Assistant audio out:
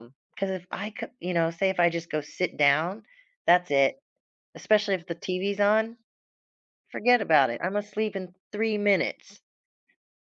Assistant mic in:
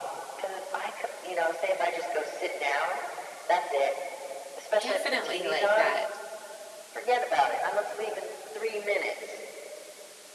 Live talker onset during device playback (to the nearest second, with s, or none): 5 s